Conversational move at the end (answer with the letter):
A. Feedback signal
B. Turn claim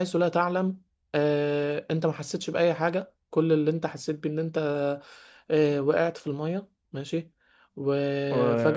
A